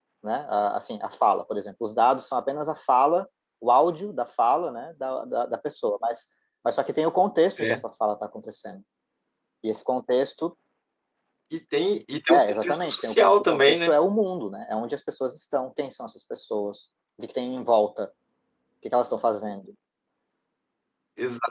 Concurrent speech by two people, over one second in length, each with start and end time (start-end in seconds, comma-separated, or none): 12.3-13.9